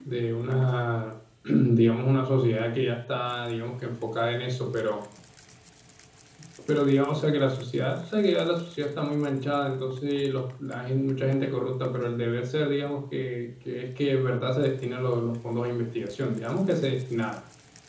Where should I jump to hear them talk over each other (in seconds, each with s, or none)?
none